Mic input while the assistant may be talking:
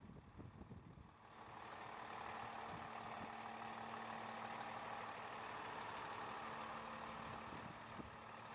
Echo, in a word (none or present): none